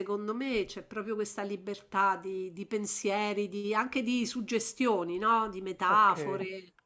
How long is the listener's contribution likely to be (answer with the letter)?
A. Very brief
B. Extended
B